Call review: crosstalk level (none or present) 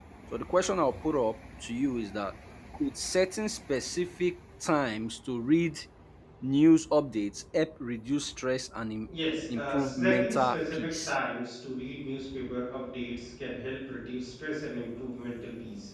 present